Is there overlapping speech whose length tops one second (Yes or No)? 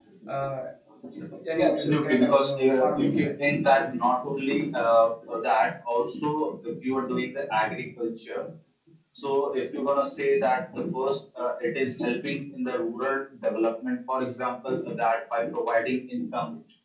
Yes